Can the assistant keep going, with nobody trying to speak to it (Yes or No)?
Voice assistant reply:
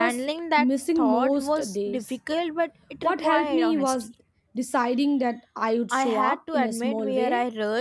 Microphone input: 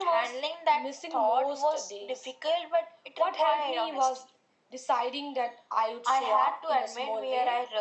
Yes